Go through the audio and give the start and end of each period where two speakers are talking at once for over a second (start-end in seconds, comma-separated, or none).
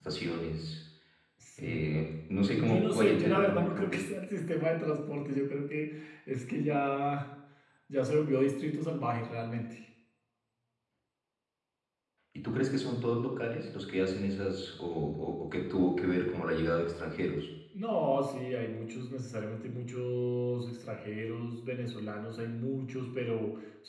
2.5-4.0